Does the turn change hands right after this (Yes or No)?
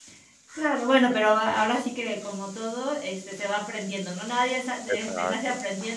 No